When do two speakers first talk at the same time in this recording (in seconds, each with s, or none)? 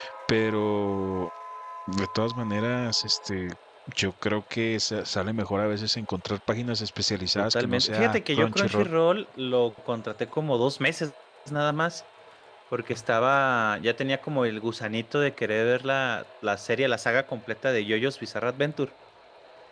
7.4 s